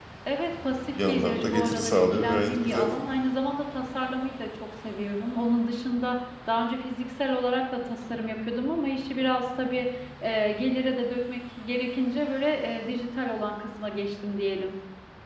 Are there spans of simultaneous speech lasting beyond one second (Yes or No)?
Yes